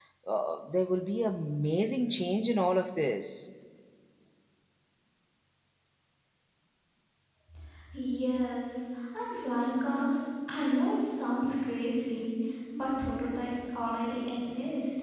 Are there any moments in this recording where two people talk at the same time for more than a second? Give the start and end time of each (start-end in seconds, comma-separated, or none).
none